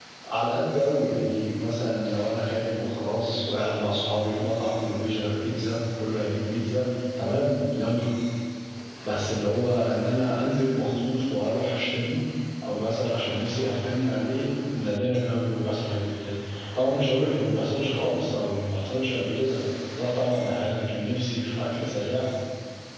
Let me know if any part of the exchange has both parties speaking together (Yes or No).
No